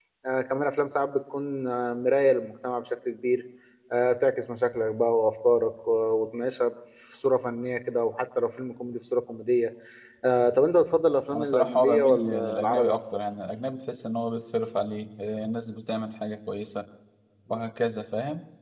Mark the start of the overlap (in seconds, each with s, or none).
11.3 s